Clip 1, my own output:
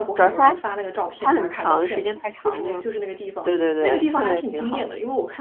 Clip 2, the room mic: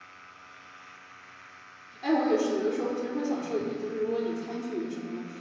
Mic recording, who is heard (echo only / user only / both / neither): user only